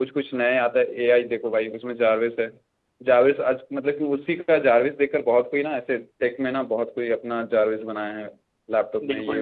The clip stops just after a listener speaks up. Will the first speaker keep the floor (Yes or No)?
No